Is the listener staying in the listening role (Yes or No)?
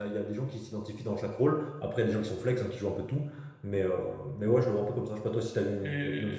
No